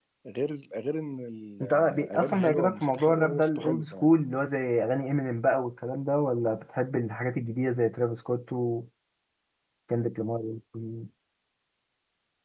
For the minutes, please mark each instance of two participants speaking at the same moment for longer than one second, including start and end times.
1.6-4.1

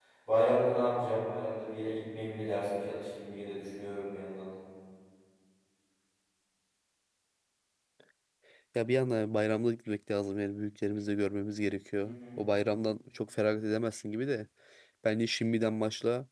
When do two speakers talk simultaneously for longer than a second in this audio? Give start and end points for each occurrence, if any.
none

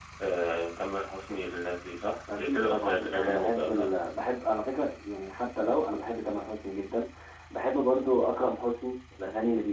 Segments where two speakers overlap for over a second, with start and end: 2.3-3.9

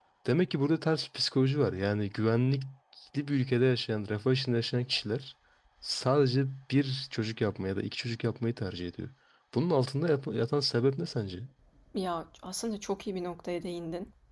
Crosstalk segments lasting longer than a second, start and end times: none

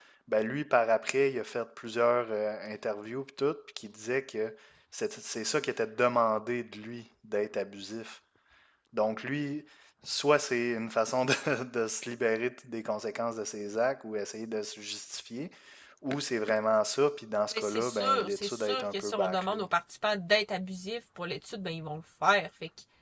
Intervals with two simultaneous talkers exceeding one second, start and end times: 17.5-19.7

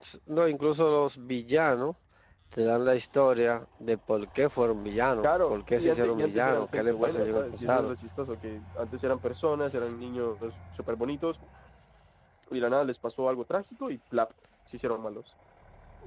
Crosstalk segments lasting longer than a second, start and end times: 5.2-7.9

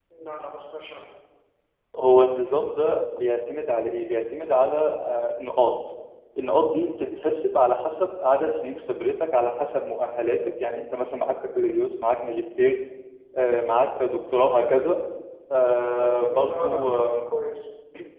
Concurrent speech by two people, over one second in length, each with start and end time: 15.6-17.2

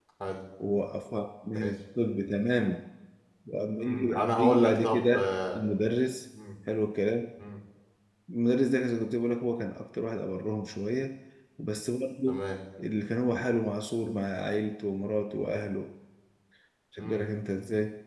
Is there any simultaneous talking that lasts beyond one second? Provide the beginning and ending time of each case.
3.8-5.3

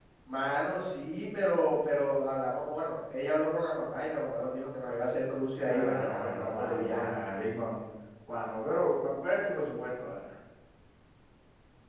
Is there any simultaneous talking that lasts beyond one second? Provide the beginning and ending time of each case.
5.6-7.1

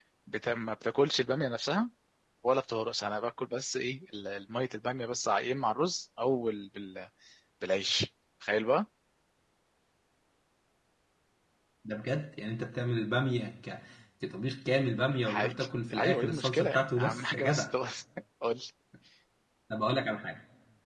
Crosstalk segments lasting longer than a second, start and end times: 15.2-17.7

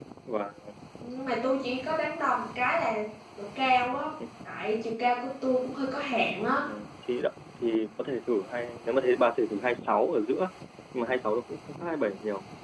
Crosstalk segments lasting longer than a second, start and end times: none

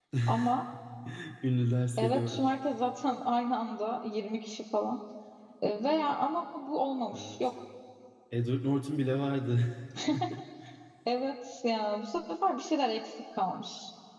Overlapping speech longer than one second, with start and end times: none

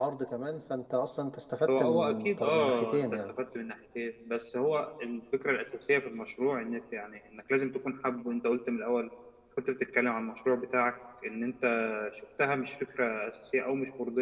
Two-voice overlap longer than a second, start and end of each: 1.7-3.3

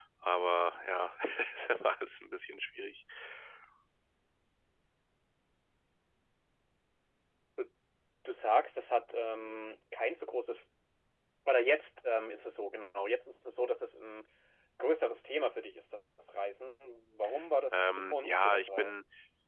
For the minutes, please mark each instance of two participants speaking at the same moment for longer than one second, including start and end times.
17.7-18.9

